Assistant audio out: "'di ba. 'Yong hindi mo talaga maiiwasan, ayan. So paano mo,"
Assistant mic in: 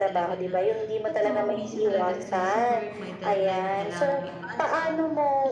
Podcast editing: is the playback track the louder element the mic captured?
Yes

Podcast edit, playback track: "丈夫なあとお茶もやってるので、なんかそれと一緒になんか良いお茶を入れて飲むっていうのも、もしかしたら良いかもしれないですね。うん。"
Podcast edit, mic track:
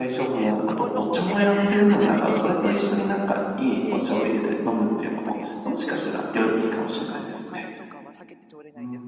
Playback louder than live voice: Yes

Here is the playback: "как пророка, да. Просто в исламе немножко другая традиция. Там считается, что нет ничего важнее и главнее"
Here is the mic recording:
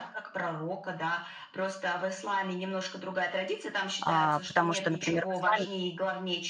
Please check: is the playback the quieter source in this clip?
Yes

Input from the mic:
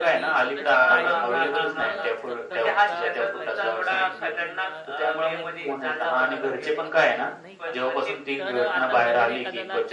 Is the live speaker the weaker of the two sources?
Yes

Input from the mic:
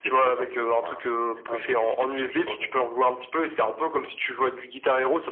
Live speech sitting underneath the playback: Yes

